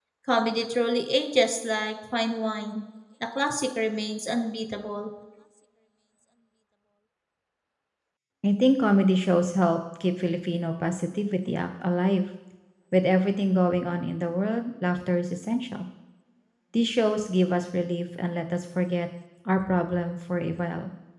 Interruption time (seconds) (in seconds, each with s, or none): none